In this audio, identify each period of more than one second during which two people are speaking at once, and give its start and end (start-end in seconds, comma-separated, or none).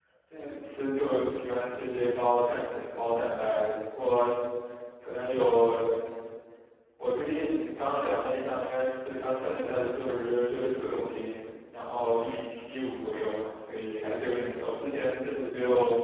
none